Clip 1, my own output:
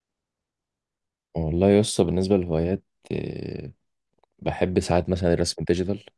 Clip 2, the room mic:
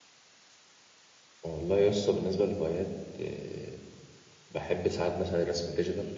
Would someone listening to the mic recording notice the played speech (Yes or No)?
Yes